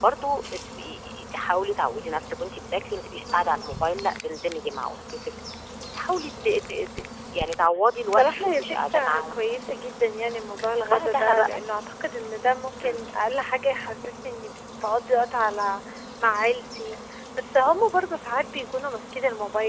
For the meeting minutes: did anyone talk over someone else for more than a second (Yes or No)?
Yes